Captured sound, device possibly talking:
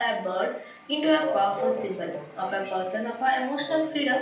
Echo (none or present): present